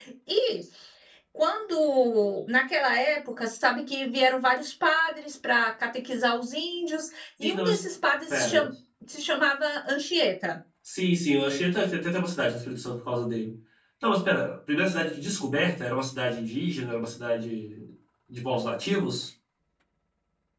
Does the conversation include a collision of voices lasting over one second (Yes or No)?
No